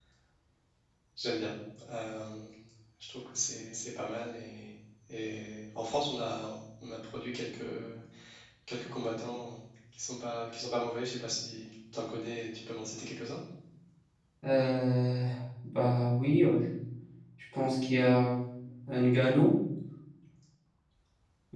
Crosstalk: none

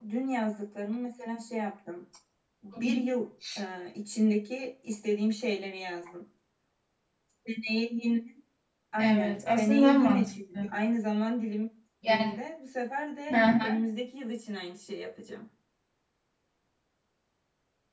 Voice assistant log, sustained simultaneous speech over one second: present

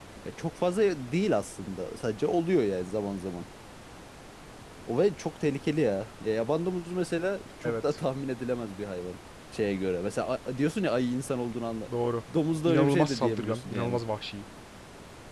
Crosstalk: present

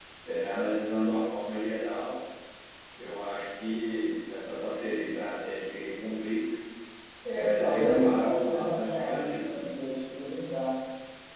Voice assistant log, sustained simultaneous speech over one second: present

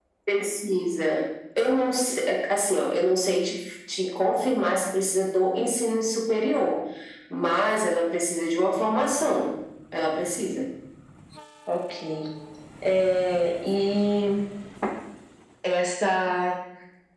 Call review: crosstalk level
none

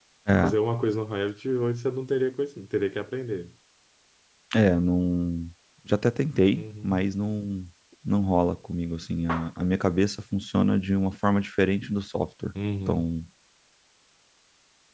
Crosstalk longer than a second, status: none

